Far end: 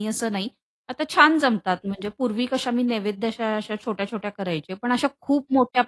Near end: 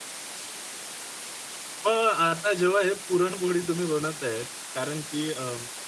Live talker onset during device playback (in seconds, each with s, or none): 1.9 s